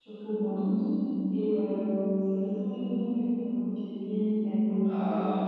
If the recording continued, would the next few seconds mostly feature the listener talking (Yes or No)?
No